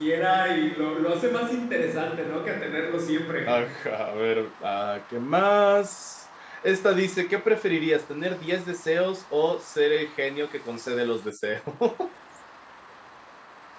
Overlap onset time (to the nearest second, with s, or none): none